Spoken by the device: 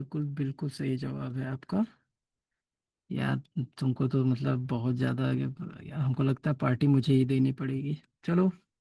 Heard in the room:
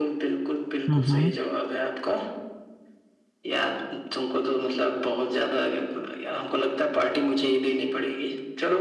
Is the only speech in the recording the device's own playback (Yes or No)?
No